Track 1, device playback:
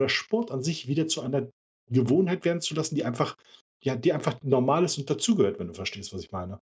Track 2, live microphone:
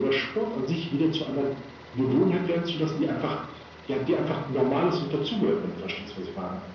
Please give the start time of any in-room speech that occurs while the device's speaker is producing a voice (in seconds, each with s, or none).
none